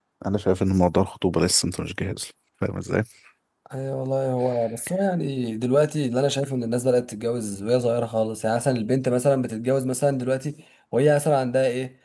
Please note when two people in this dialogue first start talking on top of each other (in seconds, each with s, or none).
none